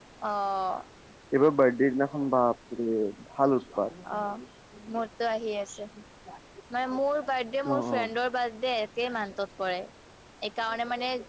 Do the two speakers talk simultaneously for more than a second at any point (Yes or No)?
No